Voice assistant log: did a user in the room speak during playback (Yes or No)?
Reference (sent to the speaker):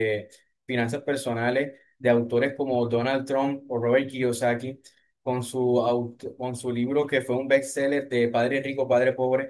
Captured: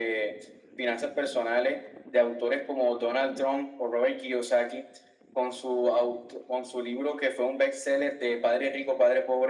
No